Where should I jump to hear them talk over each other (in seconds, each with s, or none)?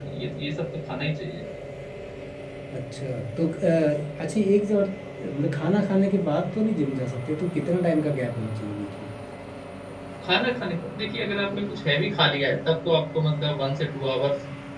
none